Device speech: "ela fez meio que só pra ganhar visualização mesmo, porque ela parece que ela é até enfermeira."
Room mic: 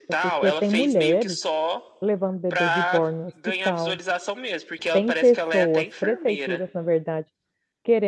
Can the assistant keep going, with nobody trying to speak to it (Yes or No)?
No